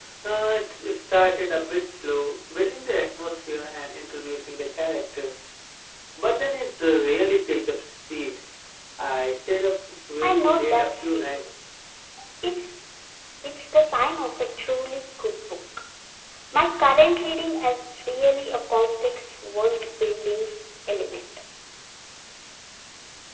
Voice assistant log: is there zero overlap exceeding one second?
No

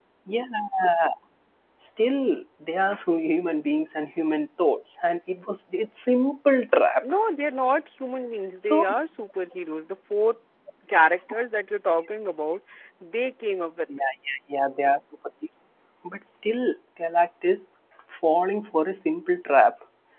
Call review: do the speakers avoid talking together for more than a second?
Yes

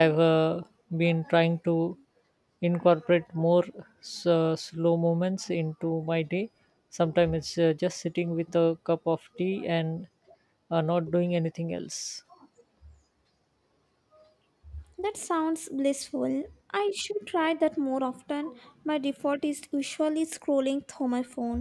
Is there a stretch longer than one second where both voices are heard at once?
No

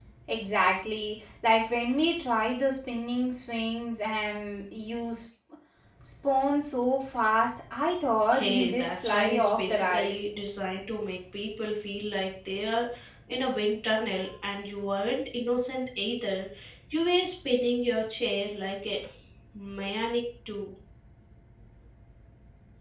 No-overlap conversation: No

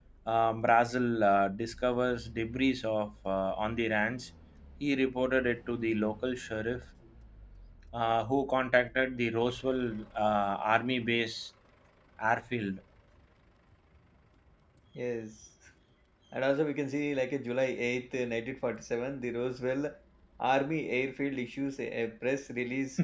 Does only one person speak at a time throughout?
Yes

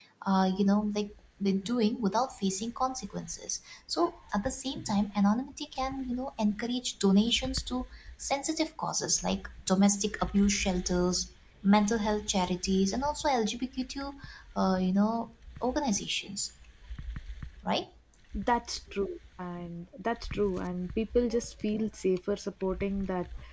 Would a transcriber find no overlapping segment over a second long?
Yes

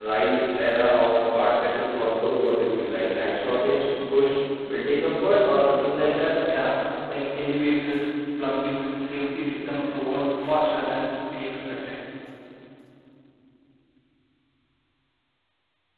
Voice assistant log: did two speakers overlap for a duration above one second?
No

